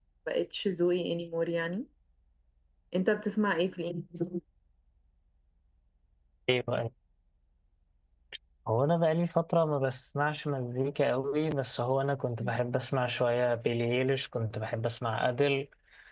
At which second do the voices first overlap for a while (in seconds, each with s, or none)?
none